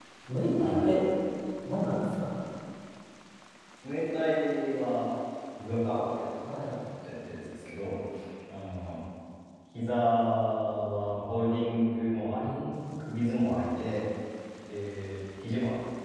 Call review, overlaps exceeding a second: none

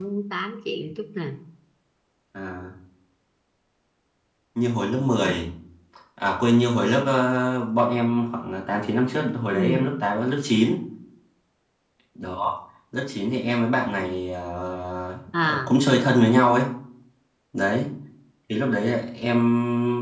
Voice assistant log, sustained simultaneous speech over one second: none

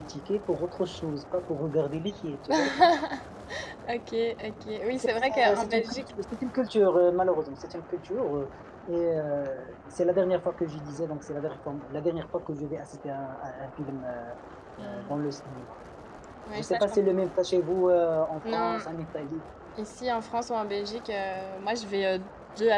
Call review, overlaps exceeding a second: present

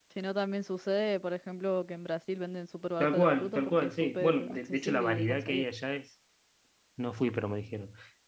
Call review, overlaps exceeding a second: present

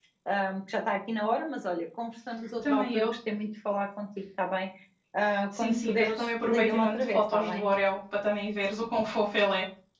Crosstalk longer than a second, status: present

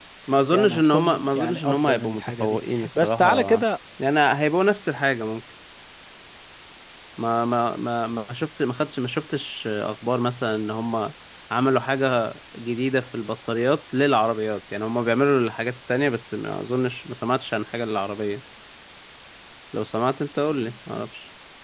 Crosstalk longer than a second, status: present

